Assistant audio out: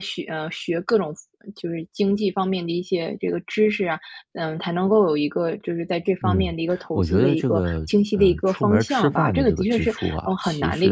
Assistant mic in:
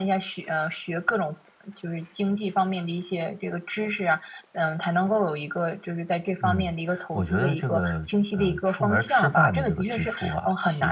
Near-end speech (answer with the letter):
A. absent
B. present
A